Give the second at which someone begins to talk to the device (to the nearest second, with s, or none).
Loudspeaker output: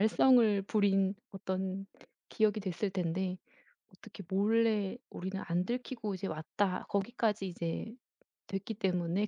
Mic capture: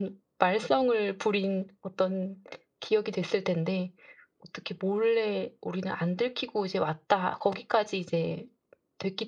none